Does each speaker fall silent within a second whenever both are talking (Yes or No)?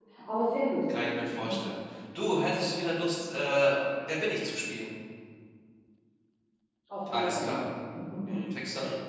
Yes